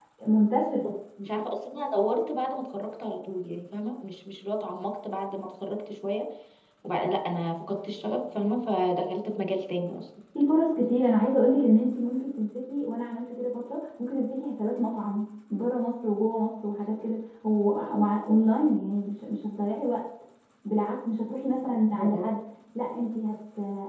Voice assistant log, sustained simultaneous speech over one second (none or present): none